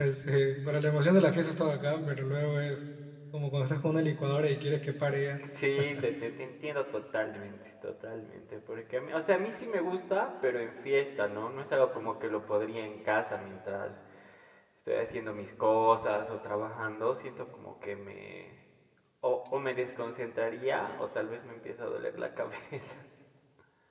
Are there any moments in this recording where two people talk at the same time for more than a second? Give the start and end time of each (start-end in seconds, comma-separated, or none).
none